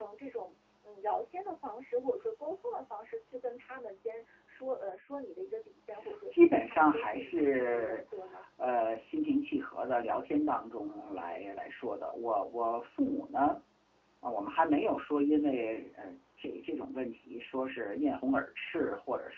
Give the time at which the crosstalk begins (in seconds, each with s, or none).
6.3 s